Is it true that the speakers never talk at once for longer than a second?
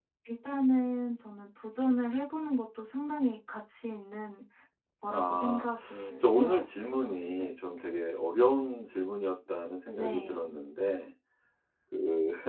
No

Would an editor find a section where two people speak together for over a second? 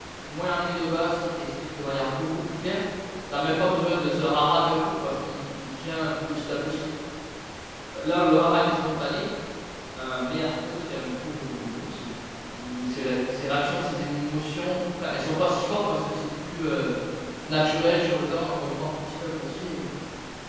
No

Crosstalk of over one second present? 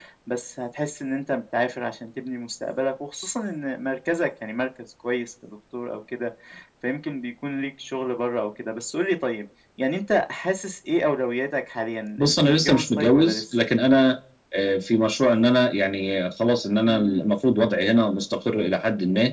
Yes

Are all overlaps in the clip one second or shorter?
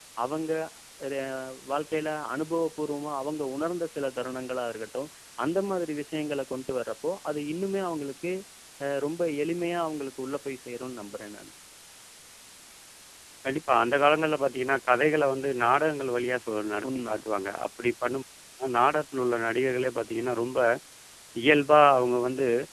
Yes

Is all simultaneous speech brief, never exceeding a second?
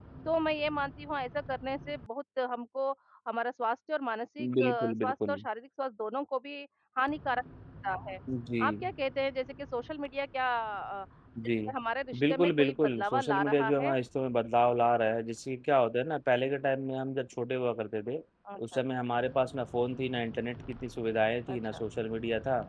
No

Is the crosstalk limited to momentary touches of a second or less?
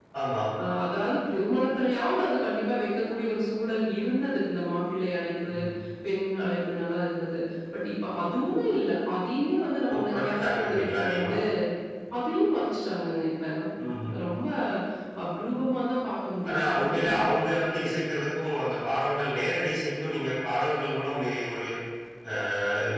No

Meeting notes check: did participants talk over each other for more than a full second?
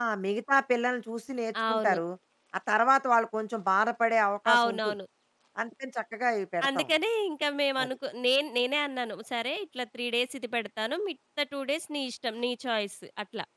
No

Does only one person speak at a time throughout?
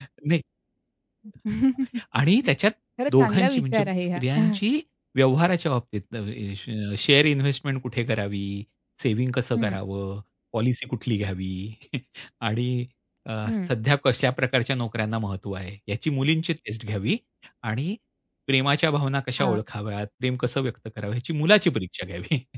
No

